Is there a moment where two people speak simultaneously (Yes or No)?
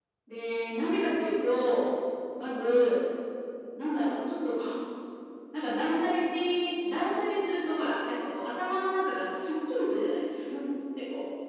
No